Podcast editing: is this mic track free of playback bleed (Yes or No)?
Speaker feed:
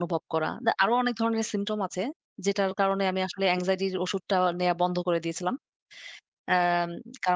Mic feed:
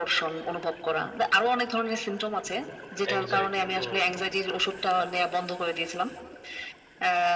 No